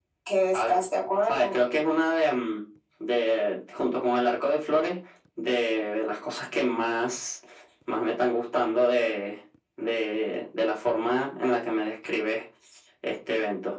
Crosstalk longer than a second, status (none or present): none